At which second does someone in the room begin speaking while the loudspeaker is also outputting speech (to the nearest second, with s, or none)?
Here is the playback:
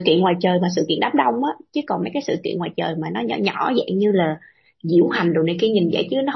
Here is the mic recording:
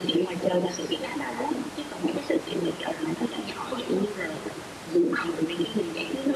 none